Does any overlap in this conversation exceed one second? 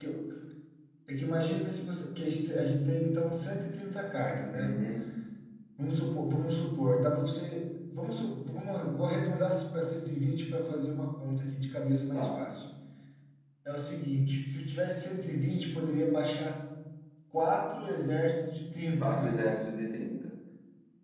No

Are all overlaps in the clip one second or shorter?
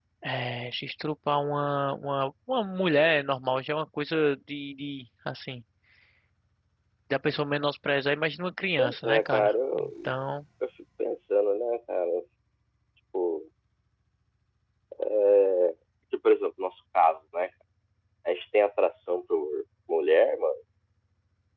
No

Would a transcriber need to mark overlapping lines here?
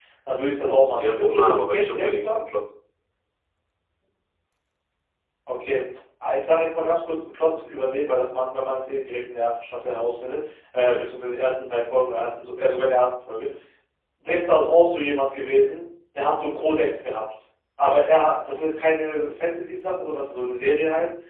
Yes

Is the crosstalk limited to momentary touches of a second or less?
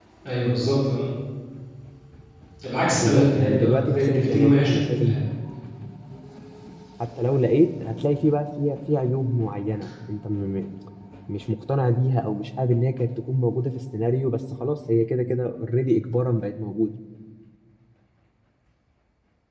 No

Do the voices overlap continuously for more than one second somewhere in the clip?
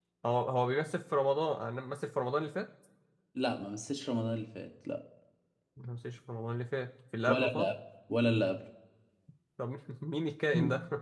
No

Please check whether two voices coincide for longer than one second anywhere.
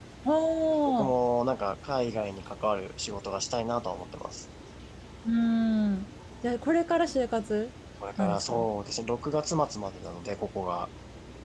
No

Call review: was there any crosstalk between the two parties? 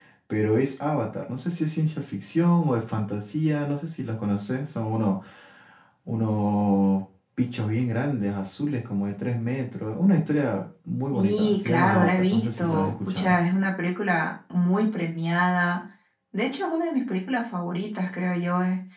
Yes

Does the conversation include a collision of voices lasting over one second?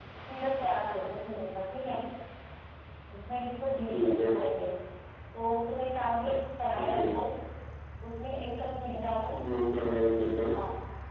No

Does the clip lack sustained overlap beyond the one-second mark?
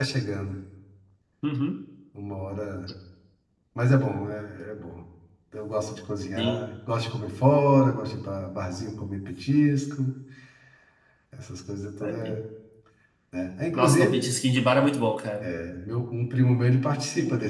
Yes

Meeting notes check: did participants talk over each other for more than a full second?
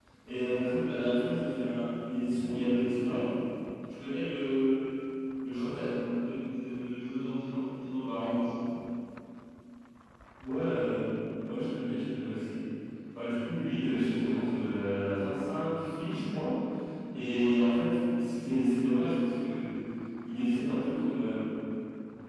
No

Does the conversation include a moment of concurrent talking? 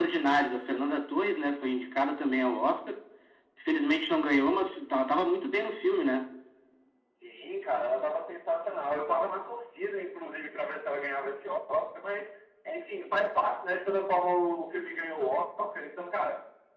No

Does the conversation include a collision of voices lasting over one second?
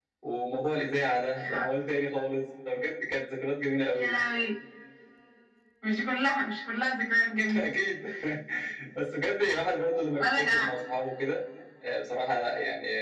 No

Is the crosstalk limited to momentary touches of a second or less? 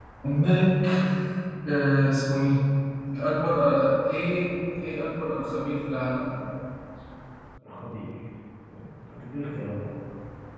Yes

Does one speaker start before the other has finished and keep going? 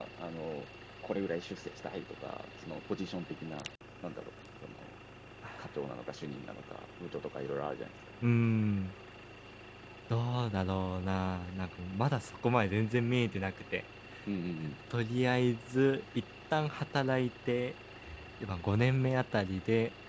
No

